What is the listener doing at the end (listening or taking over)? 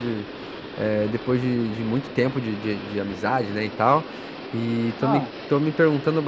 listening